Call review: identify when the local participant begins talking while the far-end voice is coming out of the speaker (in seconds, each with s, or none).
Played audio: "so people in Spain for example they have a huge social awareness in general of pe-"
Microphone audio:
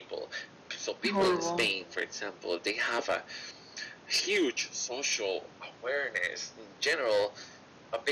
1.1 s